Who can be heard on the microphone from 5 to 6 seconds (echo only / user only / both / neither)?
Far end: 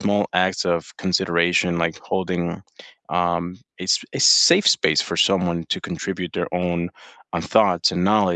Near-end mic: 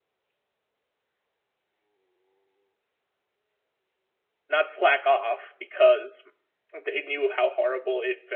user only